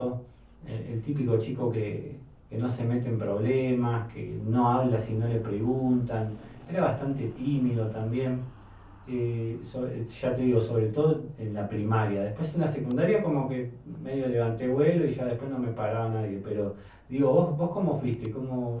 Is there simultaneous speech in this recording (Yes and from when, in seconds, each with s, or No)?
No